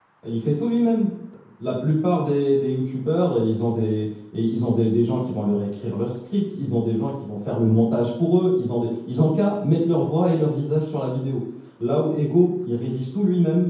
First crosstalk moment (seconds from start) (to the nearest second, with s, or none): none